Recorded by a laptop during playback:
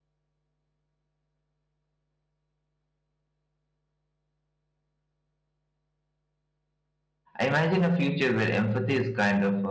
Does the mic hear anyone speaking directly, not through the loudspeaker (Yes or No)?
Yes